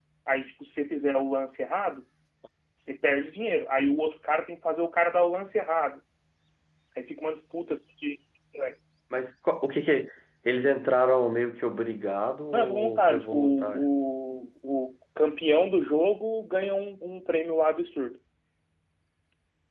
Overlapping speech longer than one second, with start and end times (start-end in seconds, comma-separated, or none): 12.5-13.9